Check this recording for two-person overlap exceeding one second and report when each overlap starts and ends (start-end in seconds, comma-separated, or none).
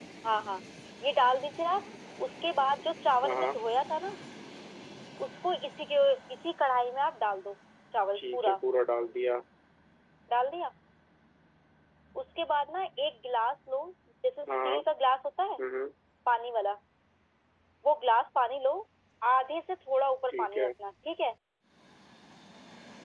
none